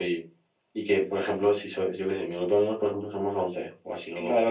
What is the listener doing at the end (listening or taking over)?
taking over